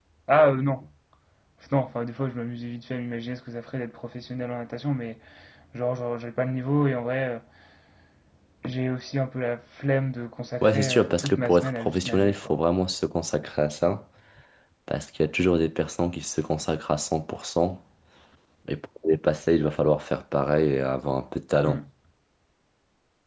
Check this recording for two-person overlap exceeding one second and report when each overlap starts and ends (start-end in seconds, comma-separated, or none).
10.6-12.5